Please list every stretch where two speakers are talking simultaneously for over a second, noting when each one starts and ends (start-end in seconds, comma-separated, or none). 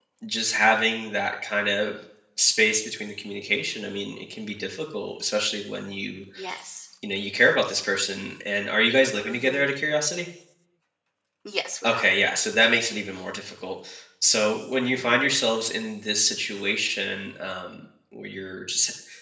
none